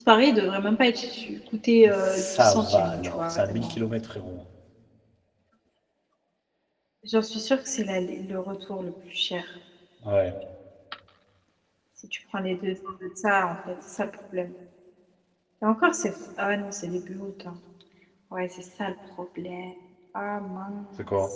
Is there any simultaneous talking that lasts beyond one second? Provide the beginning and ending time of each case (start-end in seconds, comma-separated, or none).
2.0-3.8